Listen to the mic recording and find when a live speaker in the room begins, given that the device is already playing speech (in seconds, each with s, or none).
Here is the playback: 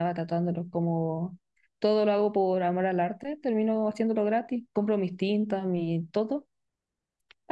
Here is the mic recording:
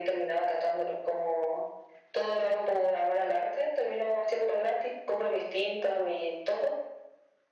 none